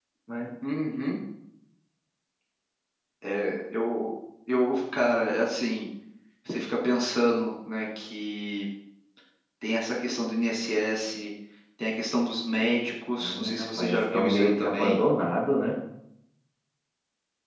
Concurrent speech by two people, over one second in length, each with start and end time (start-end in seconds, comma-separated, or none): 13.2-15.0